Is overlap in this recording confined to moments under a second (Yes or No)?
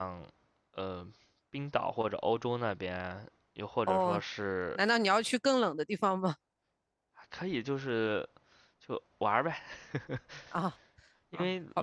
Yes